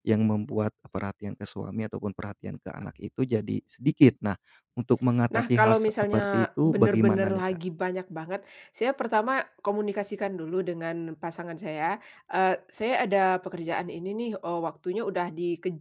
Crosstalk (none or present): present